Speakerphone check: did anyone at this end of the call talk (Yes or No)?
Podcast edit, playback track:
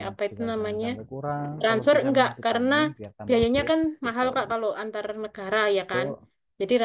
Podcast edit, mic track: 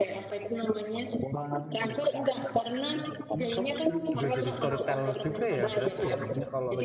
Yes